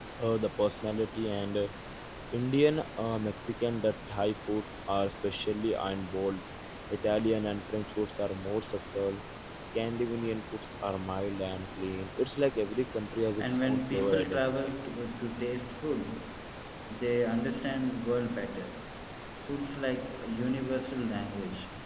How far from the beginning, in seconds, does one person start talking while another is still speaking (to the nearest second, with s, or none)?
13 s